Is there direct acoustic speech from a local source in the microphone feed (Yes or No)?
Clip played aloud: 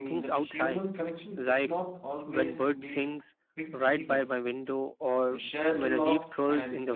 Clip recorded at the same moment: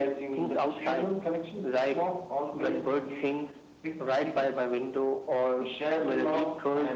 No